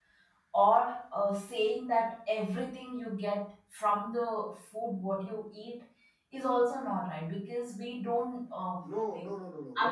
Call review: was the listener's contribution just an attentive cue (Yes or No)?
No